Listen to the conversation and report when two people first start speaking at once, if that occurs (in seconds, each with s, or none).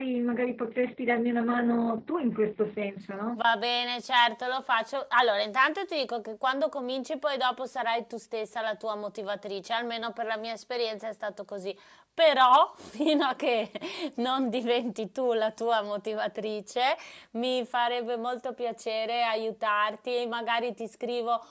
none